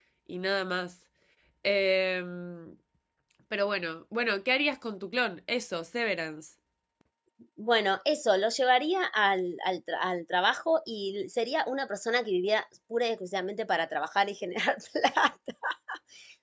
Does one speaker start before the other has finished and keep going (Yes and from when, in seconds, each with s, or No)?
No